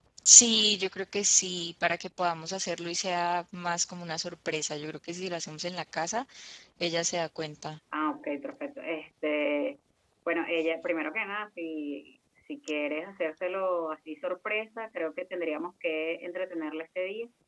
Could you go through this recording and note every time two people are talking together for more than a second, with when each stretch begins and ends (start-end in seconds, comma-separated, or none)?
none